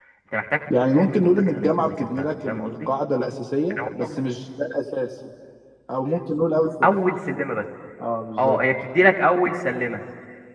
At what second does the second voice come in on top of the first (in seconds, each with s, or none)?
0.8 s